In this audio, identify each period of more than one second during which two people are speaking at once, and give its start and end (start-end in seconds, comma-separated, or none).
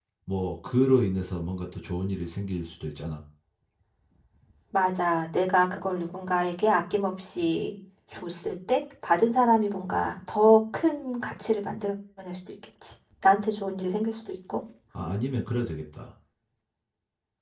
none